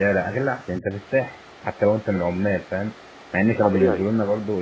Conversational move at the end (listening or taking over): listening